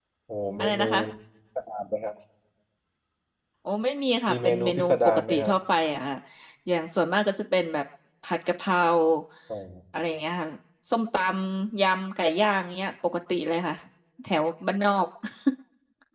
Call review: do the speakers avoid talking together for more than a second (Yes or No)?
No